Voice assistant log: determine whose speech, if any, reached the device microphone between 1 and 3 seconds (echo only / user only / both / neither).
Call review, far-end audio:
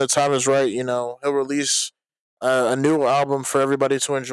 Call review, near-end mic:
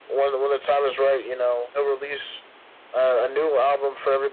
echo only